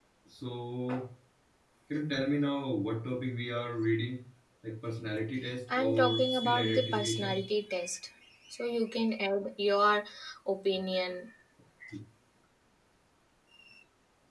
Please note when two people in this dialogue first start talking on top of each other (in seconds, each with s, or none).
5.7 s